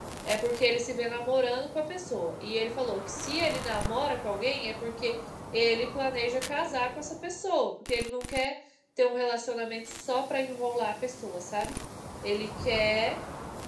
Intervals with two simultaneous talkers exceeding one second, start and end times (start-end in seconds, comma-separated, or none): none